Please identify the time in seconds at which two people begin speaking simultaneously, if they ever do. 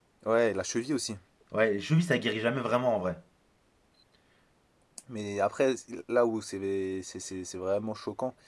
none

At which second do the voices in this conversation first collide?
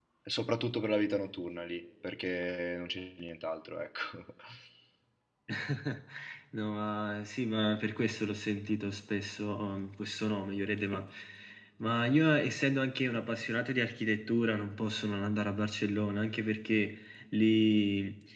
none

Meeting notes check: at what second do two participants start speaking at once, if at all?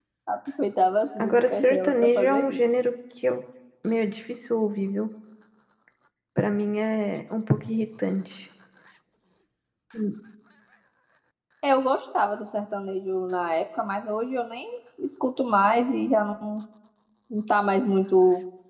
1 s

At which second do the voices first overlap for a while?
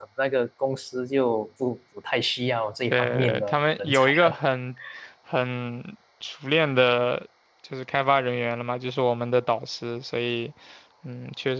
3 s

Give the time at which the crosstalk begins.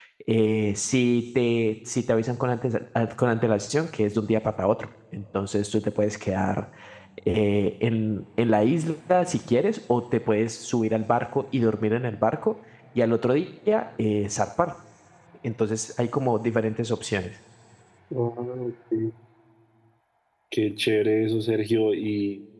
none

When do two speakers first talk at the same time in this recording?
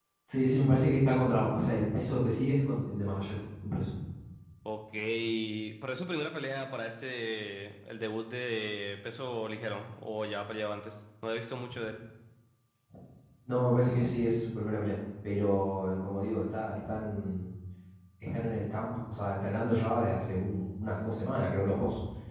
none

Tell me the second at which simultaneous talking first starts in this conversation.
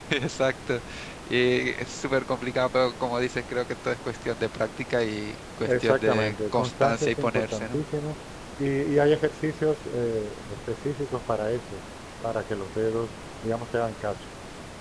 6 s

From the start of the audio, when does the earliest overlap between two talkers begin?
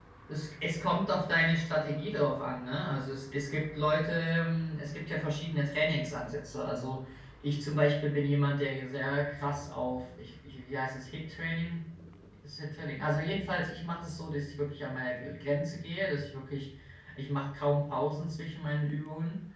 none

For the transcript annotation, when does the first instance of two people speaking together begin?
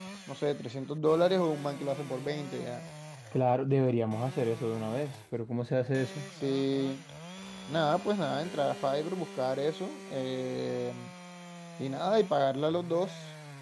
none

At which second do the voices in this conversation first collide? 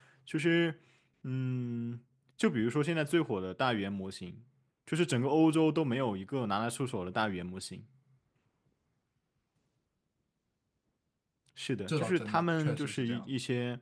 12 s

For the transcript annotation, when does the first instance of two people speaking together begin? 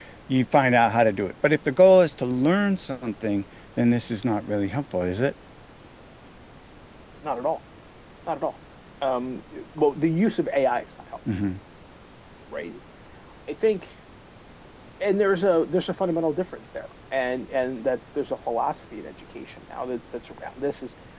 none

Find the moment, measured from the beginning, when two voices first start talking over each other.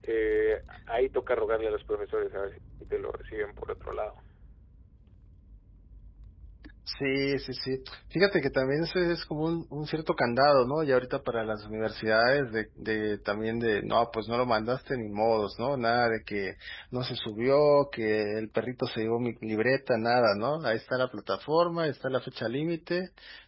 none

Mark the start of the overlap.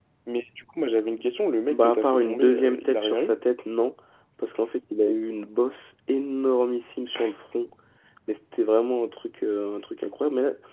2 s

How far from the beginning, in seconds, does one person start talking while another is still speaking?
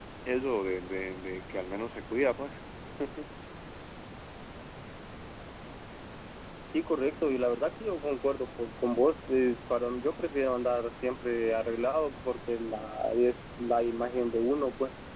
none

